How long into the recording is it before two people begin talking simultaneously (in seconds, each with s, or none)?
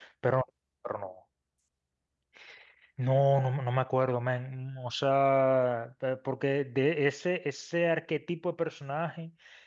none